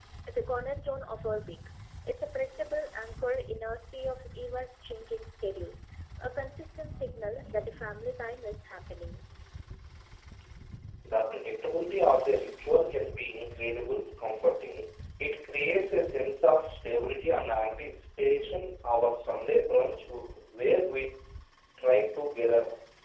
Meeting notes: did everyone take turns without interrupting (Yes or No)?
Yes